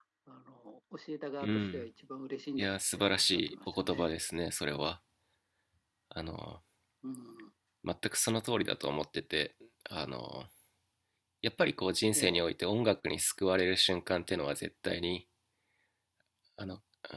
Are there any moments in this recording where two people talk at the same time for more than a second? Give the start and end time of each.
2.6-4.1

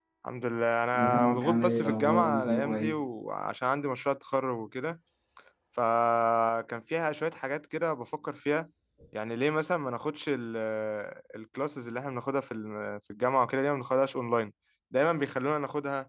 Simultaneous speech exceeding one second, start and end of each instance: 0.9-3.0

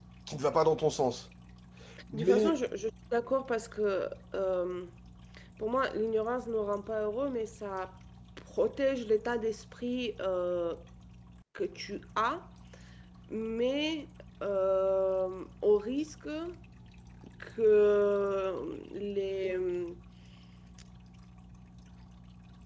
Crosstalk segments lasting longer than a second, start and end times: none

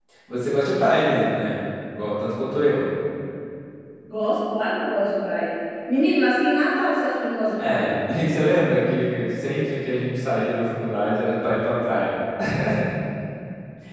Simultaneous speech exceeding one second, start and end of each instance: none

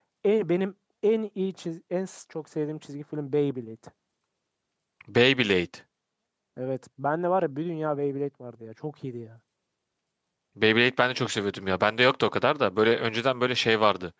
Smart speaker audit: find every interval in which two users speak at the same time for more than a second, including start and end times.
none

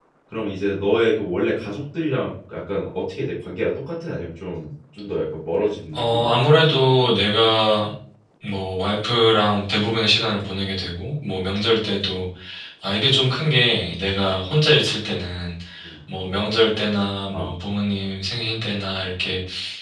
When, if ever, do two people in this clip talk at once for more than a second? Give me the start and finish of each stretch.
none

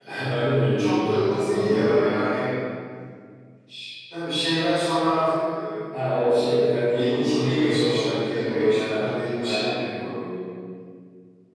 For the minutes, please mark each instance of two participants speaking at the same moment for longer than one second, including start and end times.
0.8-2.5, 6.8-10.1

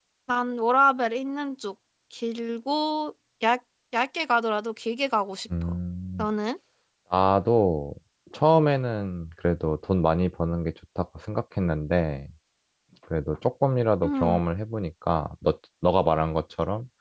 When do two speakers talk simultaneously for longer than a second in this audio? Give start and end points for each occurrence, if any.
none

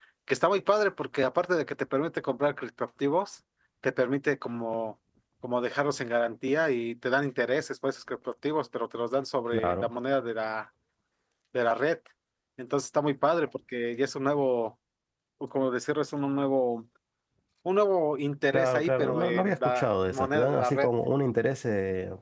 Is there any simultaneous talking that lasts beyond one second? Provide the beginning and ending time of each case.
18.5-20.9

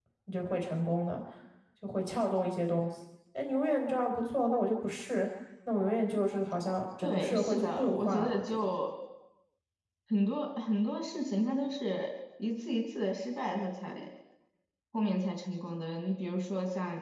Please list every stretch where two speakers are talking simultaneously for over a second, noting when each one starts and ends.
7.0-8.8

